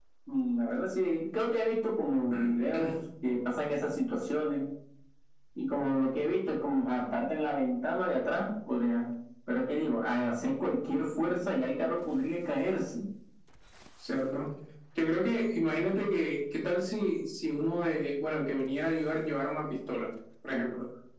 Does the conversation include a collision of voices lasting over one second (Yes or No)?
No